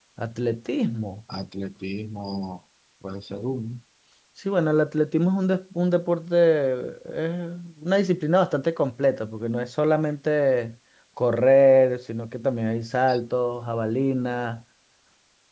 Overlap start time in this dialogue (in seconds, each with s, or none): none